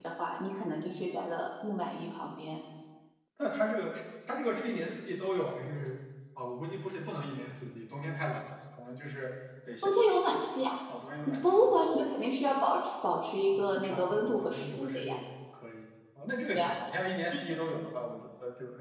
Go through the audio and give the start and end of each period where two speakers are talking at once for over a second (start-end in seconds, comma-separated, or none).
13.5-15.2